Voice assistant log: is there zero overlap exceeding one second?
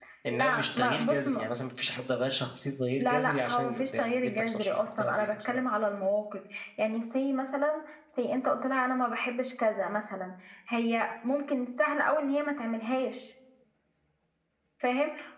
No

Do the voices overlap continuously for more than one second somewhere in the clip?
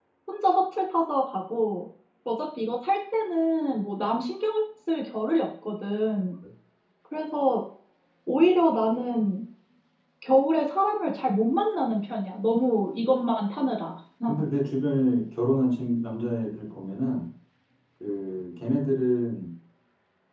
No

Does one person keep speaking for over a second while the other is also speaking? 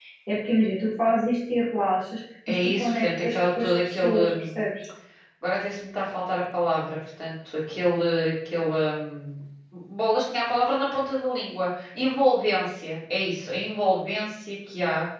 Yes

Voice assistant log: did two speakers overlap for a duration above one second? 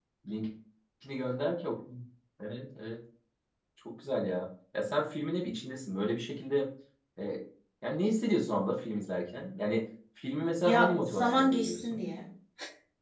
Yes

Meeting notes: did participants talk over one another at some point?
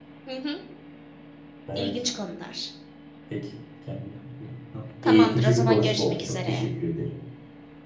Yes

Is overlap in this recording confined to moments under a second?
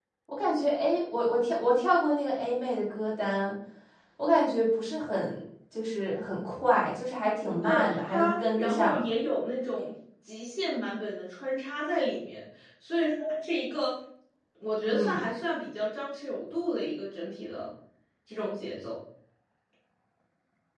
No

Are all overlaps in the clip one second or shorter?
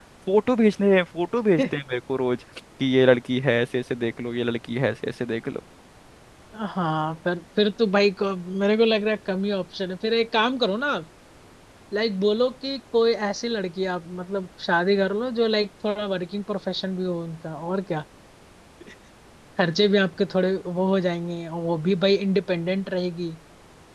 Yes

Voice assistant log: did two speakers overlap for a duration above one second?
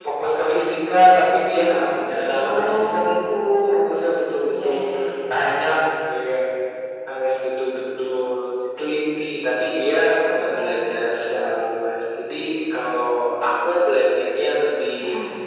Yes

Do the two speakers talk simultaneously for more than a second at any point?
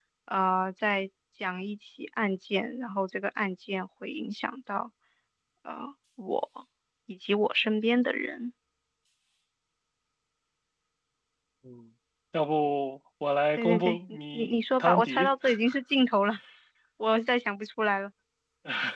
Yes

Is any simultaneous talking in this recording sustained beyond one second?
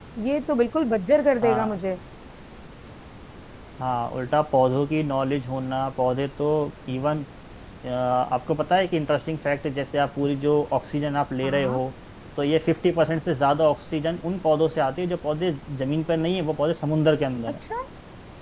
No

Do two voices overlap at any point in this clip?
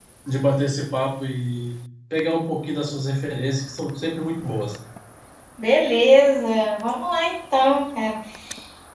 No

